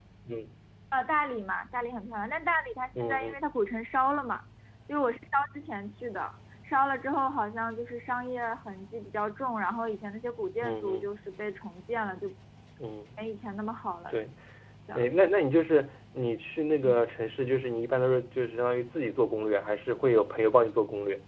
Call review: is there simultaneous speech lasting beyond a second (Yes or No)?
No